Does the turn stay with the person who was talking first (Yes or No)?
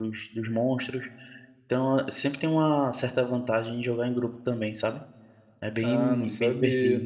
No